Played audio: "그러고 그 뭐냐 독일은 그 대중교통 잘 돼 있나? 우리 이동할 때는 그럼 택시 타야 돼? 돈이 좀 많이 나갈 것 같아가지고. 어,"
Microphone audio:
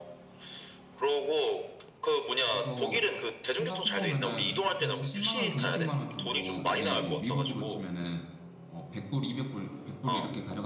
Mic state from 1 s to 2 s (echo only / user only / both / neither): echo only